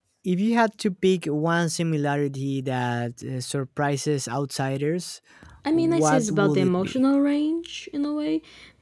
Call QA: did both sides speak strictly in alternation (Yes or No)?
No